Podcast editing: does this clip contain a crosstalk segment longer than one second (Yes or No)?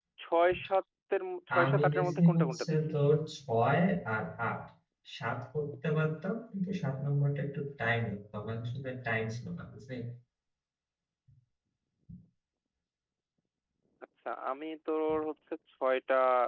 Yes